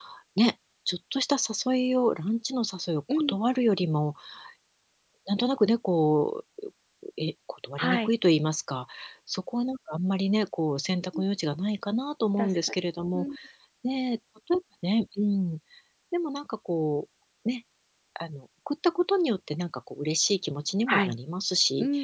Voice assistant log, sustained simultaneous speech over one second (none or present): none